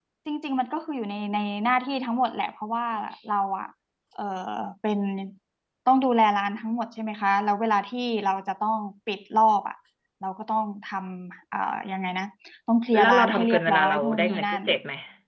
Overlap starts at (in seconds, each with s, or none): 13.0 s